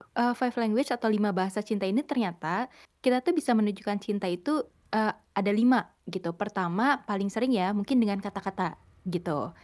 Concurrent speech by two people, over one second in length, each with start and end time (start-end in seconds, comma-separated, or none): none